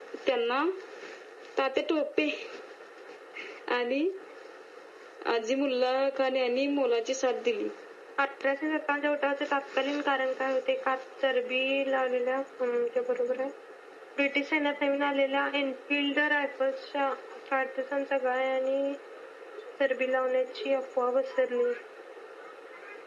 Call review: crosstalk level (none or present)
none